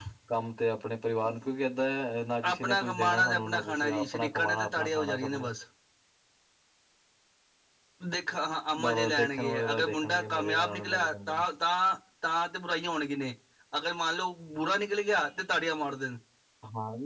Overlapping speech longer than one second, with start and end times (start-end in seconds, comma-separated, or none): 2.5-5.5, 8.8-11.4